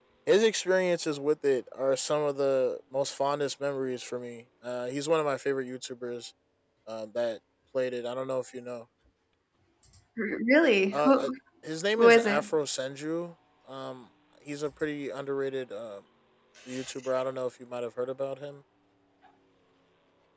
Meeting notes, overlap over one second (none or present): none